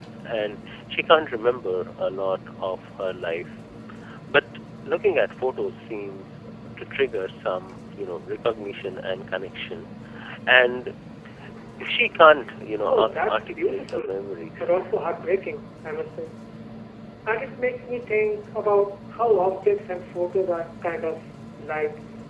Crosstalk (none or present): present